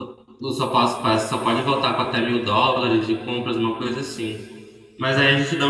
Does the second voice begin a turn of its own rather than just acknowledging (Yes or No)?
No